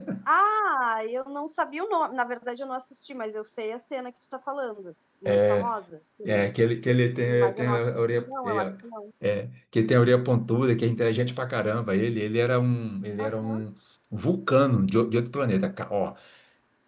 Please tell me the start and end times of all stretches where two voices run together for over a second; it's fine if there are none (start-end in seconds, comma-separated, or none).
7.2-8.6